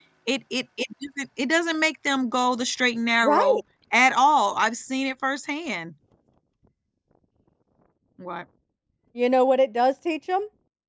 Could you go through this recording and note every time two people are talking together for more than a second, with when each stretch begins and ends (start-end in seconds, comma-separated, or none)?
none